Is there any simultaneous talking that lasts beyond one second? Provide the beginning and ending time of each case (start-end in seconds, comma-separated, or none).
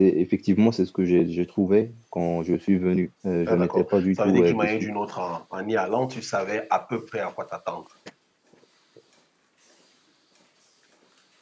3.5-4.7